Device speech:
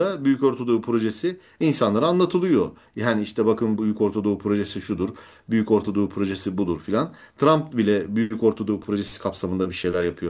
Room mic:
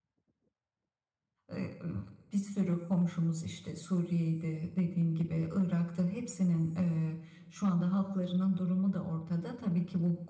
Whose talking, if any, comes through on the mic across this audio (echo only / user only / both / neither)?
user only